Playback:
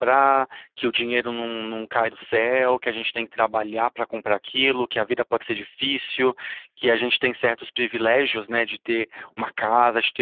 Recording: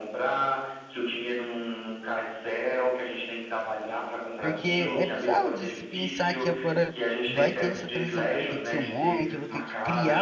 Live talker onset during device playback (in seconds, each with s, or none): 4.4 s